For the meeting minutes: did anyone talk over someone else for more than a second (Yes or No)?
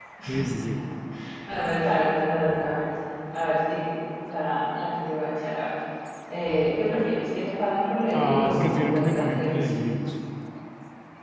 Yes